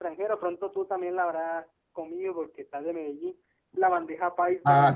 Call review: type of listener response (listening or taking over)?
taking over